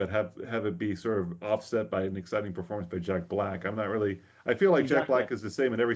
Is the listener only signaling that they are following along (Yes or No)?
Yes